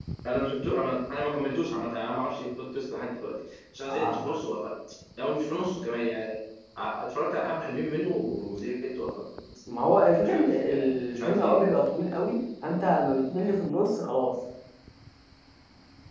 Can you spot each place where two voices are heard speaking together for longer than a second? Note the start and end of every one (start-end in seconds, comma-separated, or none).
10.2-11.6